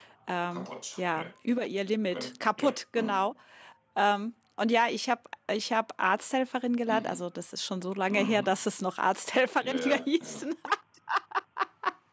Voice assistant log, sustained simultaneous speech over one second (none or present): present